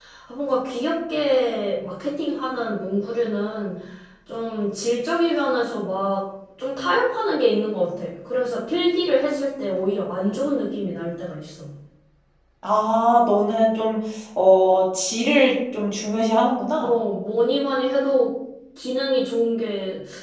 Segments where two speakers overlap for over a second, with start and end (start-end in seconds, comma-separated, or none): none